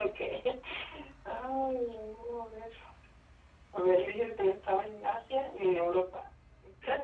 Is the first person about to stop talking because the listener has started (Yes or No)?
Yes